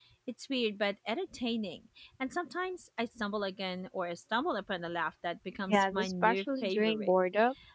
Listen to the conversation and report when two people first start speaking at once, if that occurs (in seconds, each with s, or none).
5.7 s